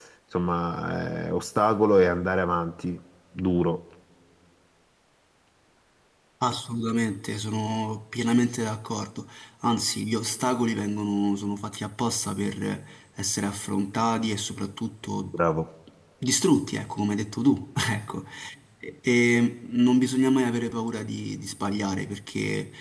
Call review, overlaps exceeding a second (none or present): none